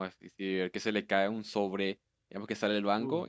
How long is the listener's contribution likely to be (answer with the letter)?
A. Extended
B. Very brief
B